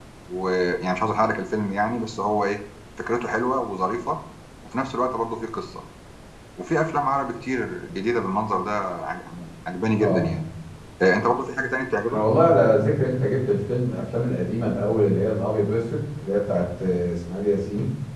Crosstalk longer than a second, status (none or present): none